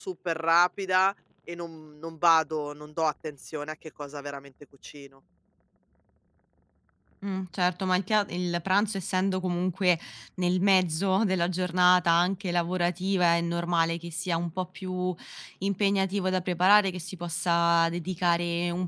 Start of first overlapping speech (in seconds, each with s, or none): none